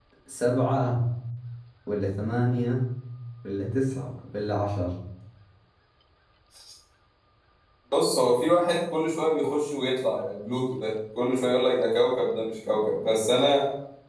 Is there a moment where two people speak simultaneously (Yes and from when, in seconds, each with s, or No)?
No